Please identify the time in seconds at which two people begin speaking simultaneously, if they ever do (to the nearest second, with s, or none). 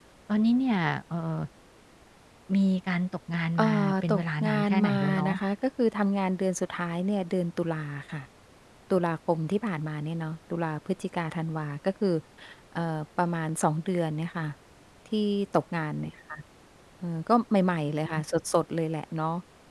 4 s